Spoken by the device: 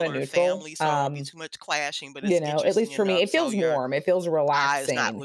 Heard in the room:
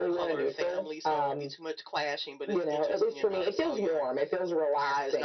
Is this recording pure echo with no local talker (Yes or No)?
Yes